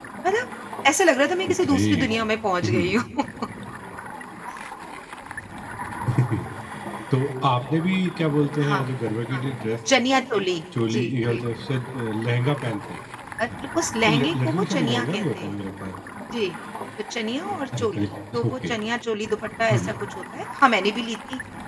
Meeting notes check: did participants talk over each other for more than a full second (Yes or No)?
Yes